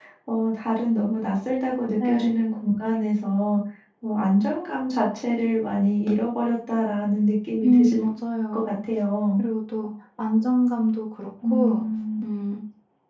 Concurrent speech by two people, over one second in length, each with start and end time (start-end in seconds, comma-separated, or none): none